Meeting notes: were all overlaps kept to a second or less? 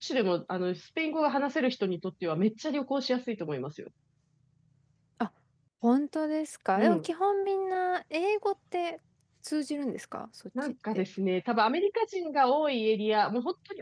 Yes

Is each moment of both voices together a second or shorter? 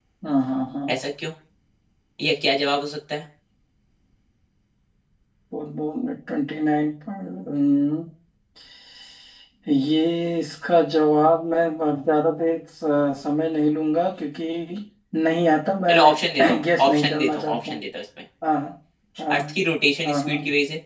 No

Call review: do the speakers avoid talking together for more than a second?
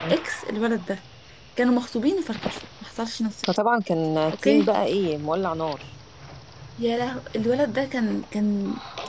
Yes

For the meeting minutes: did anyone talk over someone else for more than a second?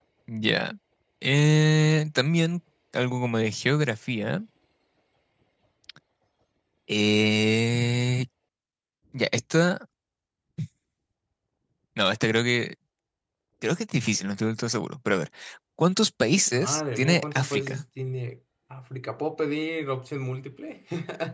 Yes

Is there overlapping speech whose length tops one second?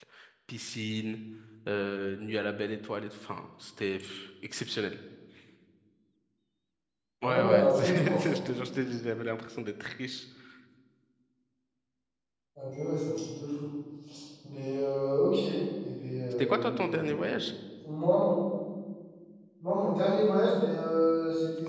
Yes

